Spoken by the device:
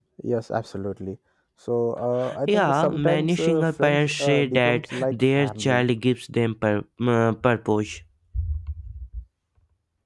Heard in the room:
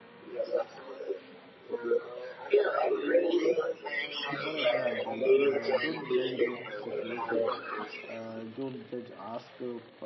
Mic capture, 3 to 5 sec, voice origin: both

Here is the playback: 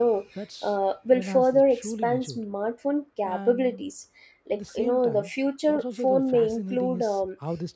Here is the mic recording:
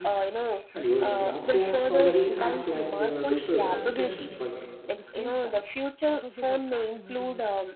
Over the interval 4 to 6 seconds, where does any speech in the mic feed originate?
both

